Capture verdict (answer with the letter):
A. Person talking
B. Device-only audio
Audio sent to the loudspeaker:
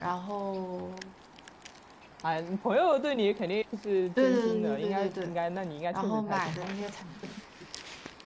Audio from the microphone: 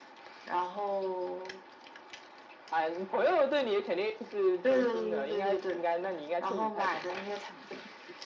B